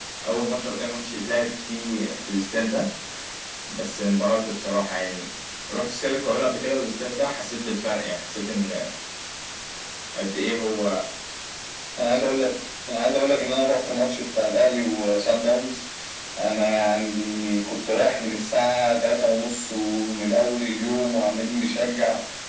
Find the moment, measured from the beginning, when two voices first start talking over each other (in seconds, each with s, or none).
none